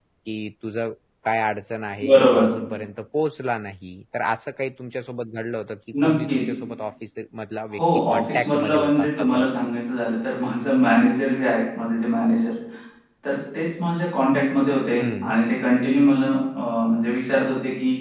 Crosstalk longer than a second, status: present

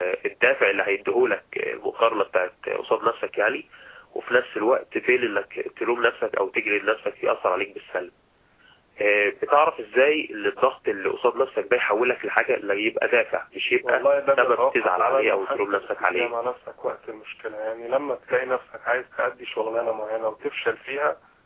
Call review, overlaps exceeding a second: present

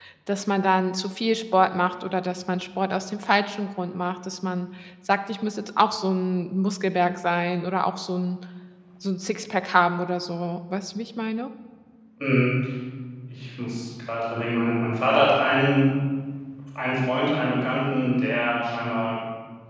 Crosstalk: none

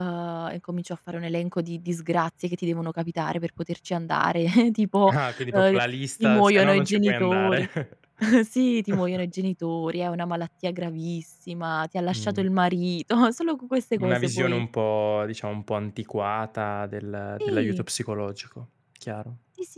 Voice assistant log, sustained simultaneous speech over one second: present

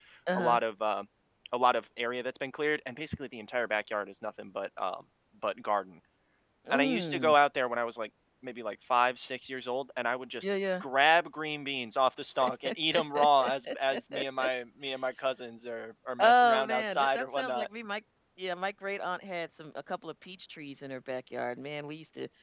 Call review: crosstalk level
present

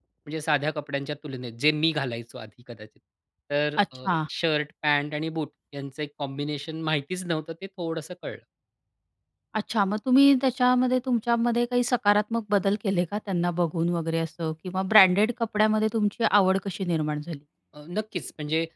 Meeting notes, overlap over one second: none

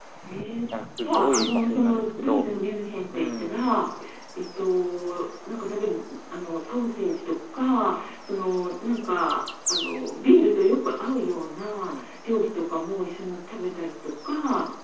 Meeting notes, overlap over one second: present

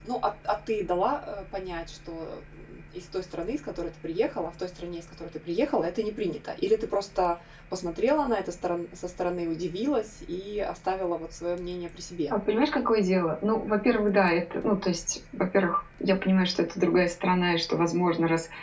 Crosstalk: none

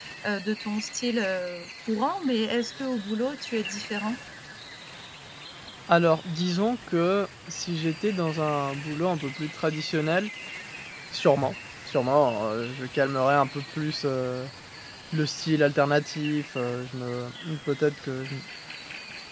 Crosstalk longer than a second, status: none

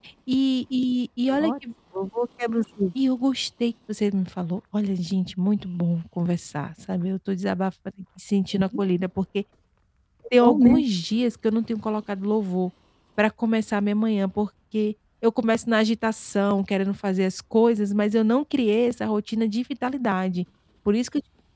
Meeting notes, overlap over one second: none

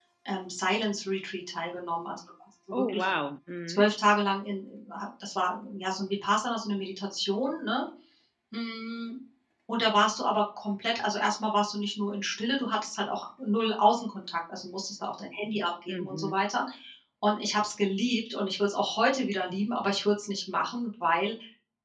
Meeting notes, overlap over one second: none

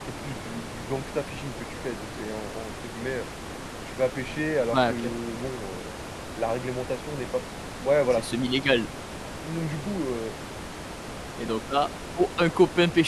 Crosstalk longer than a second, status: none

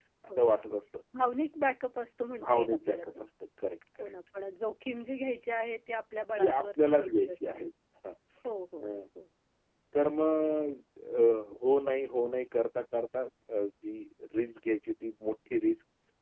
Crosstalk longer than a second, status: present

